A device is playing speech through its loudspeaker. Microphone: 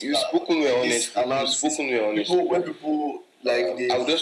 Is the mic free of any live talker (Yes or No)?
Yes